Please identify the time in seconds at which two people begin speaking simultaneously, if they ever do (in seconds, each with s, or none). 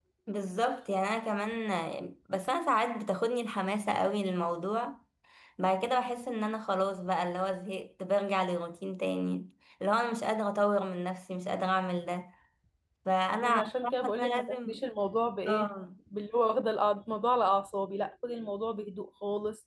13.4 s